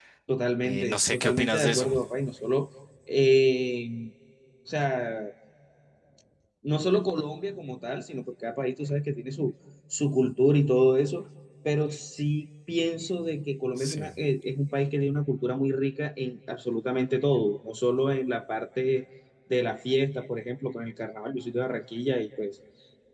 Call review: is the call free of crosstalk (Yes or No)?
No